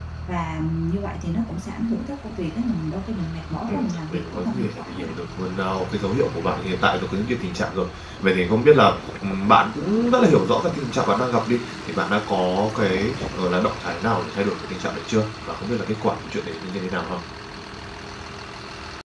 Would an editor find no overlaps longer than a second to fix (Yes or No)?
No